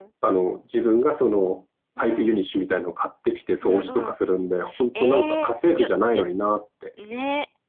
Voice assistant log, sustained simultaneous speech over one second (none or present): present